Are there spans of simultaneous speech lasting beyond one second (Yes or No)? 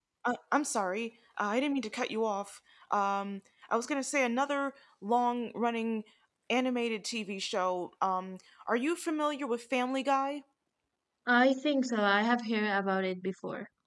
No